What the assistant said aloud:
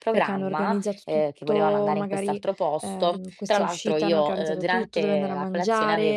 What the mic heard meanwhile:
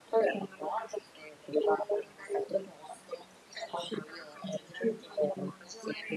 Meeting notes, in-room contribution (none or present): none